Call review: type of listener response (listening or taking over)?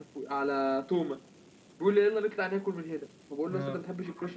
listening